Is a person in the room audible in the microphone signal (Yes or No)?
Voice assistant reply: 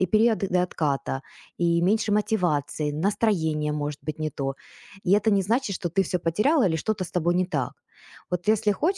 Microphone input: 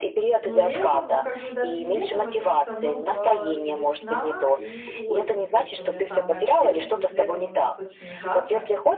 Yes